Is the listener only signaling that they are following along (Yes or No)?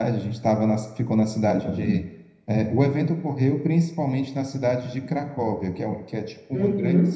Yes